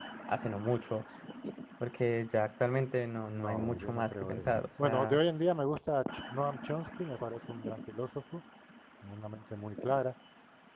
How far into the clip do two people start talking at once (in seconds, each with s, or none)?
3.3 s